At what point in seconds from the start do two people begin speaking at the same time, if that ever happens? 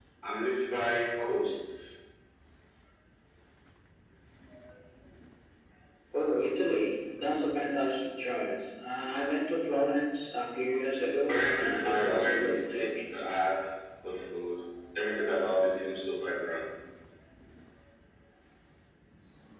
11.3 s

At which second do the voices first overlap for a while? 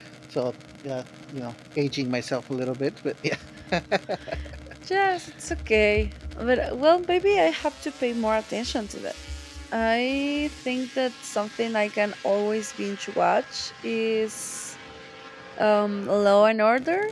none

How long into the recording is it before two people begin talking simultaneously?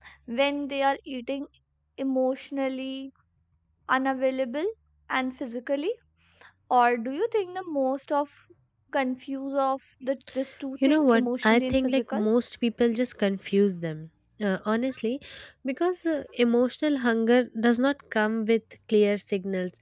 10.8 s

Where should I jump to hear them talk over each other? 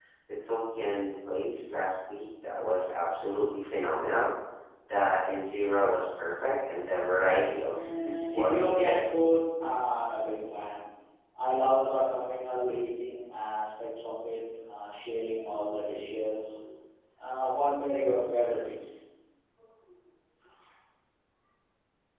7.7 s

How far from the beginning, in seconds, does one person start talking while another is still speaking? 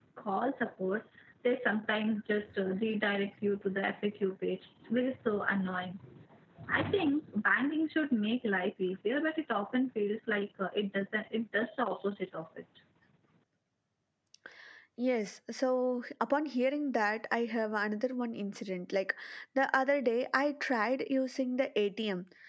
none

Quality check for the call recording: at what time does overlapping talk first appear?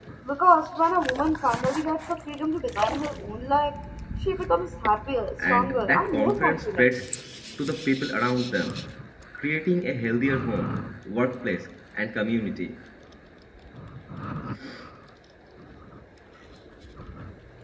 5.4 s

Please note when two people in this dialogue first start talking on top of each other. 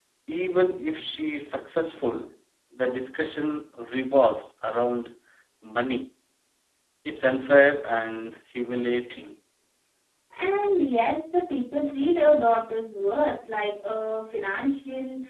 none

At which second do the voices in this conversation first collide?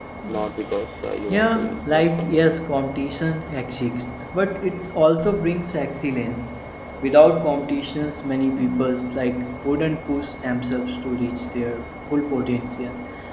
1.3 s

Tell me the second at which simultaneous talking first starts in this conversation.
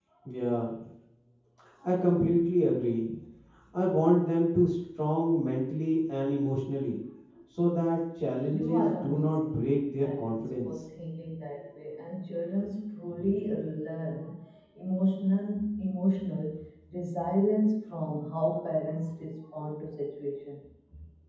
8.5 s

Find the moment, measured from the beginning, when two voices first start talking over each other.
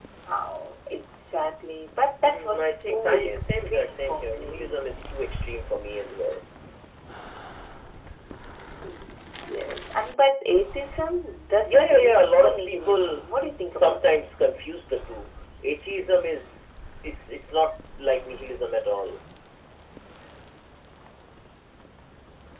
2.2 s

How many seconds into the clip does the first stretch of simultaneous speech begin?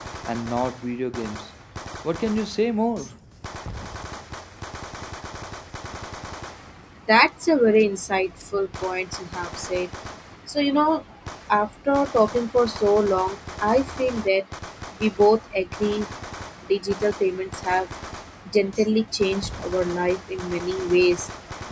none

